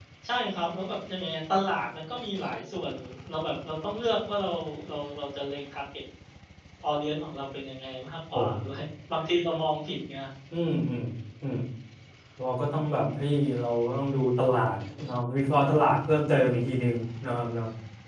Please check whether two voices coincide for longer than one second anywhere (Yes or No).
No